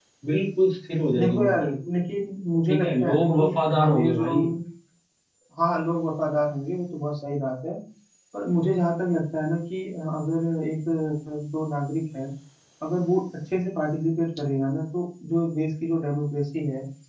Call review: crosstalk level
present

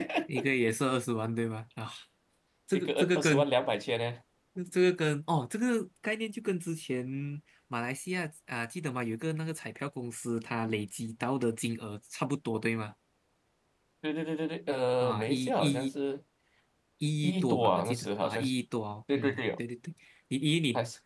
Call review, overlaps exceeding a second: present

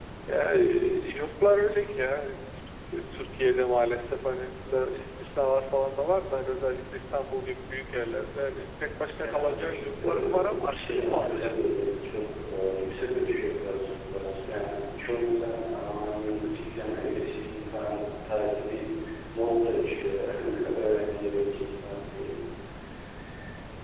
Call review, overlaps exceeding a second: present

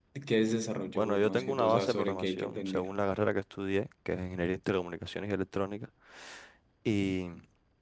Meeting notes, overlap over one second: present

